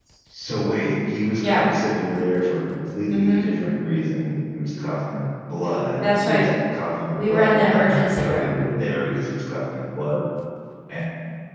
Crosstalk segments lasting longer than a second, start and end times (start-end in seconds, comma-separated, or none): 7.1-8.6